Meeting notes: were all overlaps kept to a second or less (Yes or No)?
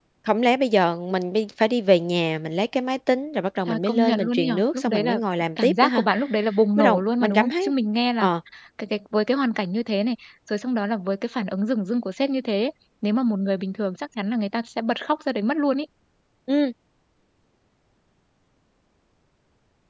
No